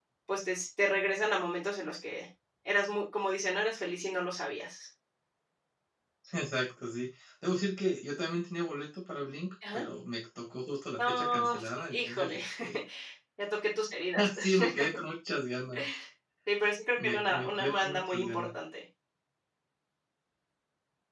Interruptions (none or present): present